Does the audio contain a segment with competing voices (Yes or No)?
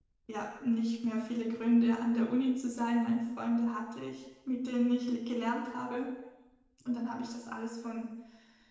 No